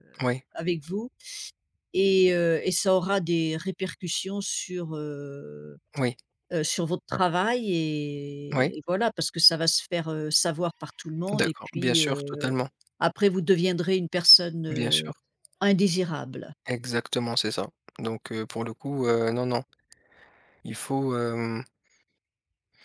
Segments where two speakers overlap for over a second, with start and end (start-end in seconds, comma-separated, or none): 11.3-12.5